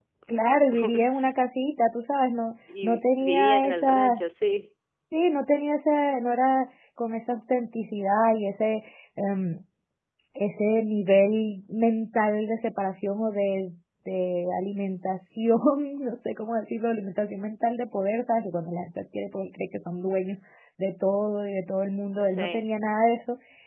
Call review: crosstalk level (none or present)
present